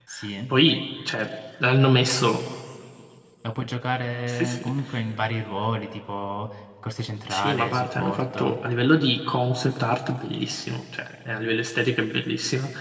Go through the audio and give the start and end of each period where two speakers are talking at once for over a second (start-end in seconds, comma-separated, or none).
7.3-8.6